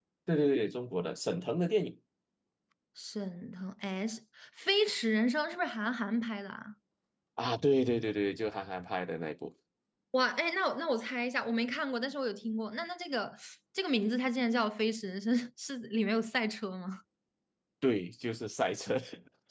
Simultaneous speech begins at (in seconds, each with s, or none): none